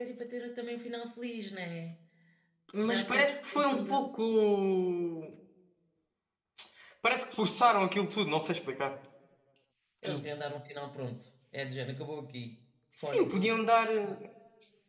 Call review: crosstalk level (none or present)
present